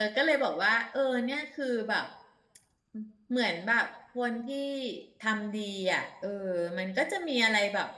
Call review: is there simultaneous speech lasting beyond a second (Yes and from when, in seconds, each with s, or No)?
No